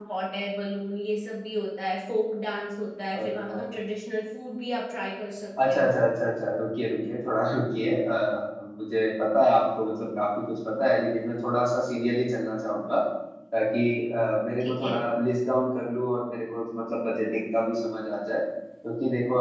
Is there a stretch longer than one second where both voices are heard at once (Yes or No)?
No